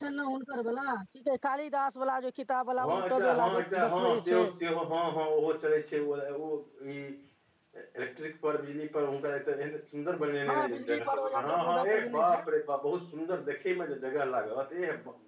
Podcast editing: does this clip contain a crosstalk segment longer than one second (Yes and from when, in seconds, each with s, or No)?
Yes, from 2.8 s